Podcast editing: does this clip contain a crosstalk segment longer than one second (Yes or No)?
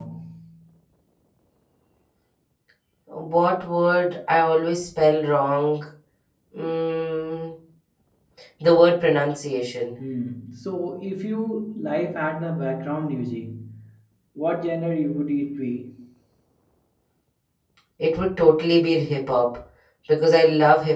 No